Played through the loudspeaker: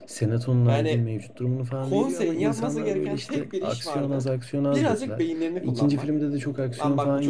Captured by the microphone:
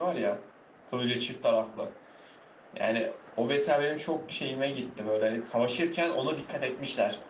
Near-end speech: present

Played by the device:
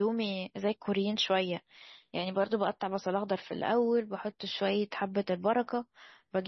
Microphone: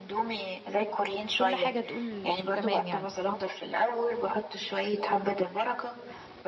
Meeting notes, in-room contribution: present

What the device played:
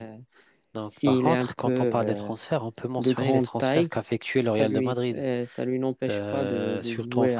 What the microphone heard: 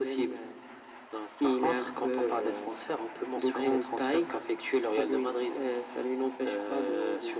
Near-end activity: none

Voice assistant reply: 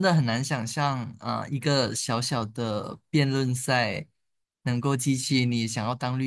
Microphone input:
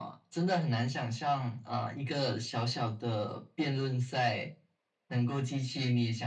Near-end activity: none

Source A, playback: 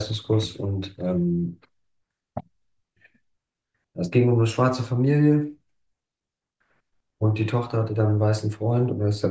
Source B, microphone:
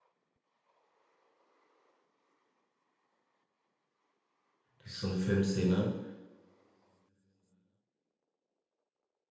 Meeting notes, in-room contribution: present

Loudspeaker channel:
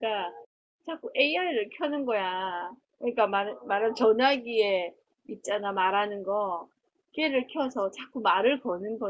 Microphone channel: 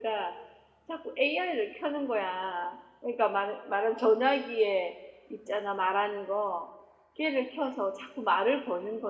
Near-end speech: none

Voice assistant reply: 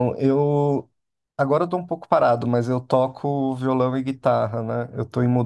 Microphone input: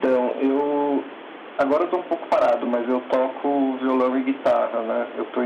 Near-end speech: none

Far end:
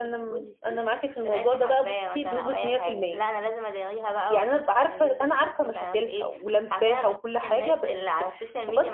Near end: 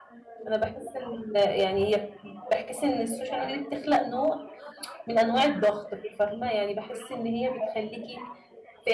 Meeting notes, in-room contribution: present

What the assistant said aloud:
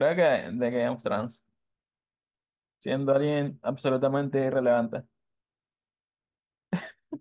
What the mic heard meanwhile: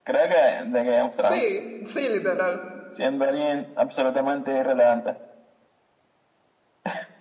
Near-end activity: present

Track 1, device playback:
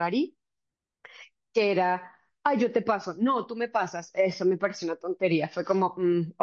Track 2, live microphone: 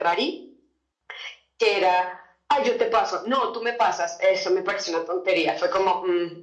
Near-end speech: none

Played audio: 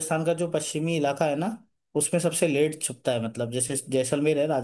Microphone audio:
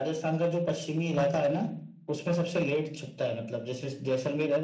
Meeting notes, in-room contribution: none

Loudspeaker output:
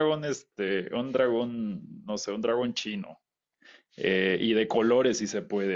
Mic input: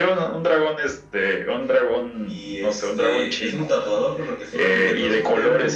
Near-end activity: present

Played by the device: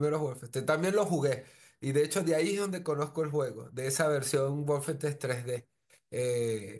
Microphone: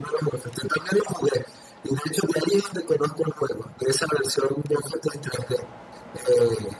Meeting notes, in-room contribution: none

